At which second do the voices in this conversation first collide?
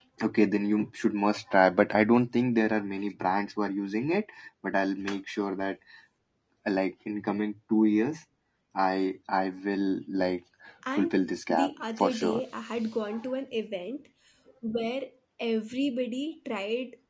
10.9 s

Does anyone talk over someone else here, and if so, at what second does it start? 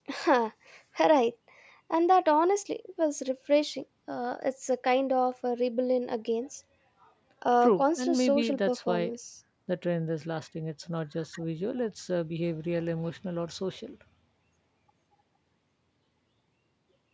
7.6 s

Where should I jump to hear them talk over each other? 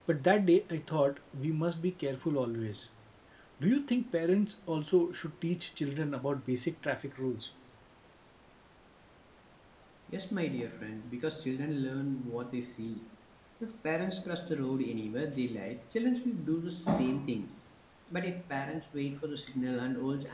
none

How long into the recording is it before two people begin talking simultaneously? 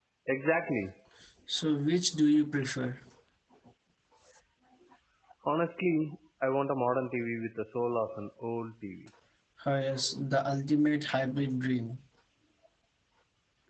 none

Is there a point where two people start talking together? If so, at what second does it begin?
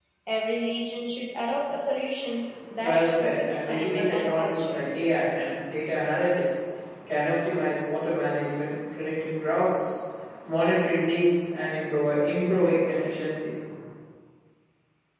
2.8 s

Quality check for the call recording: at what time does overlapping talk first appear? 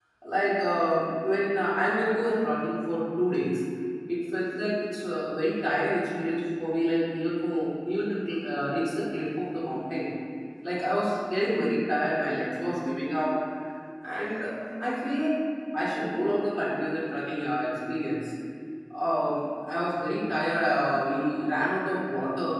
none

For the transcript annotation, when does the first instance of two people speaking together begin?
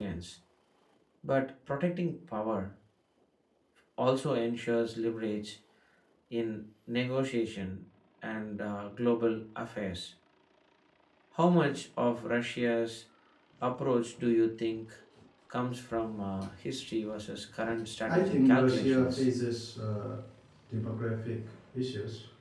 18.0 s

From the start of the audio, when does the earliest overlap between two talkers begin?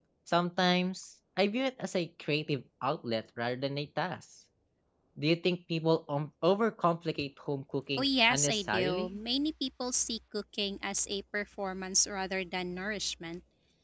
8.0 s

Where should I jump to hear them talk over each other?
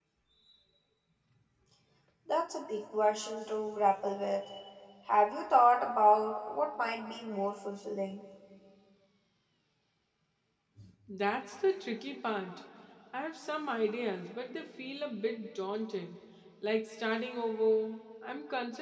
none

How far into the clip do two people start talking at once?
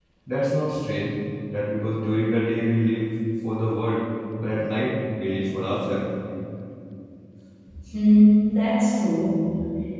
none

